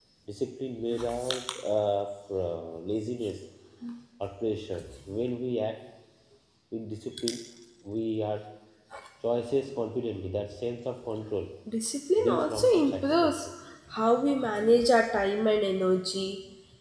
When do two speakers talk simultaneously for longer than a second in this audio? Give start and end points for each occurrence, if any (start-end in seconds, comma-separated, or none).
12.2-13.4